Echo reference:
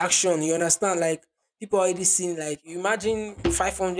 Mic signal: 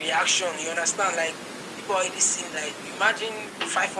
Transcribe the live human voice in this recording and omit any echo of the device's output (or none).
none